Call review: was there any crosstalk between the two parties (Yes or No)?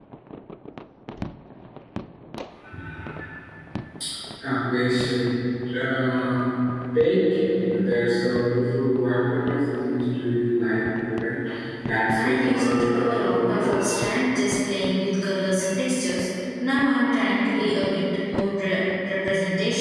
Yes